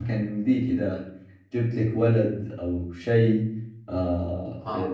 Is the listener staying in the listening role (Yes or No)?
Yes